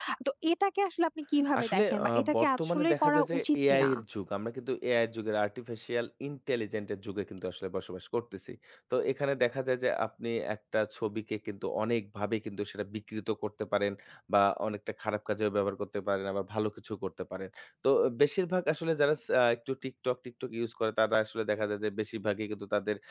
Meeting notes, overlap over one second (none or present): present